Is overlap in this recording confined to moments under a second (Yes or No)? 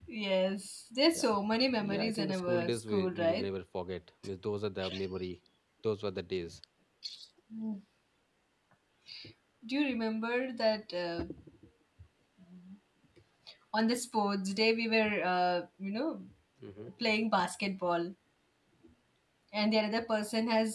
No